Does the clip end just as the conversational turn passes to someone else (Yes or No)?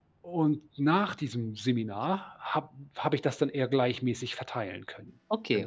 Yes